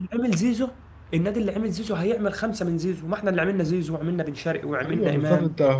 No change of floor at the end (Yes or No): No